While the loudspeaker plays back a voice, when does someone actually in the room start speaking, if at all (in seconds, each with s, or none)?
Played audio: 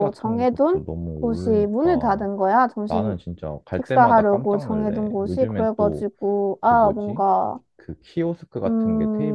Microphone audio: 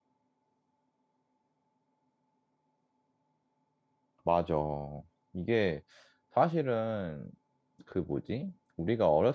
4.2 s